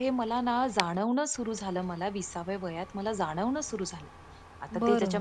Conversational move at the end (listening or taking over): listening